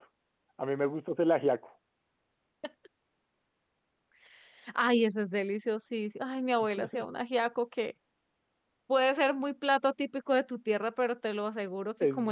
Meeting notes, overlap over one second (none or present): none